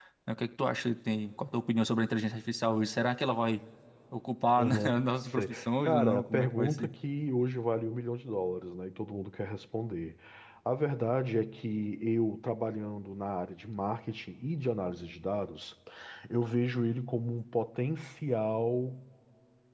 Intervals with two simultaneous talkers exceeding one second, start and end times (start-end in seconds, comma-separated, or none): 4.6-6.9